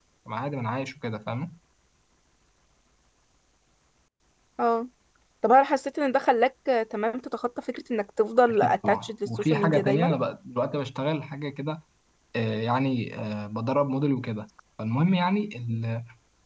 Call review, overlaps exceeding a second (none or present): present